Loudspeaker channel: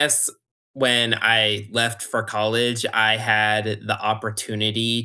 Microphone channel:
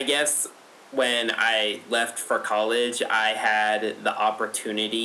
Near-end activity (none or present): none